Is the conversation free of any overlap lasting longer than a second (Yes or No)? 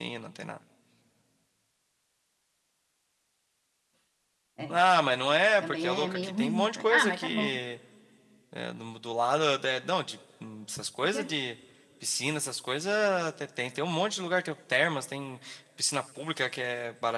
No